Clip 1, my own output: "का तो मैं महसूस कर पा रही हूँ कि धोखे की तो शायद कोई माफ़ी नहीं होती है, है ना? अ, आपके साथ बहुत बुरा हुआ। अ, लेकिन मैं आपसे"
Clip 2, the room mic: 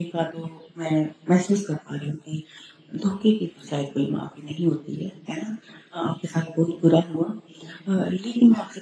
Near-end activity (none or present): none